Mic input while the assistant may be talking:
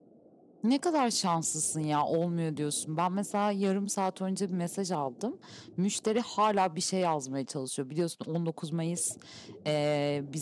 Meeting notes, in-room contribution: present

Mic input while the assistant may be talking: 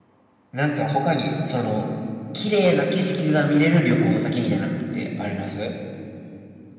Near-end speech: present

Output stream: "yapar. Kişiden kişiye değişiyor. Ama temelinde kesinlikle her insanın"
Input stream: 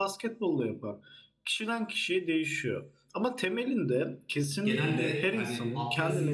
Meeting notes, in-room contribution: present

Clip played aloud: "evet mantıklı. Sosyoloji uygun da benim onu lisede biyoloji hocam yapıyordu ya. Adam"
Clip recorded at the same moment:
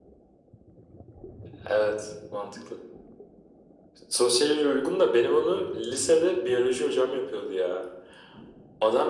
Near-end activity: none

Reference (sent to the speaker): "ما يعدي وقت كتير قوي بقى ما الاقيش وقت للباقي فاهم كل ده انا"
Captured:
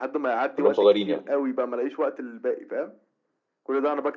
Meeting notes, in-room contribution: present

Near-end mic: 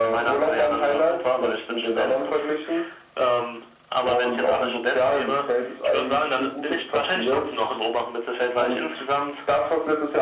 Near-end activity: none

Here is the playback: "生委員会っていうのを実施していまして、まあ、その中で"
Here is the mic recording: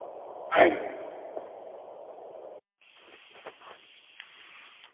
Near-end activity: present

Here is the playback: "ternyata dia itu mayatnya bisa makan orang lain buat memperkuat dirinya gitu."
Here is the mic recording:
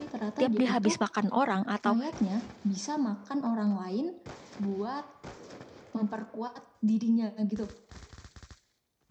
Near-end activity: present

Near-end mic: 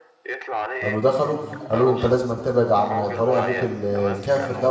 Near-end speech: present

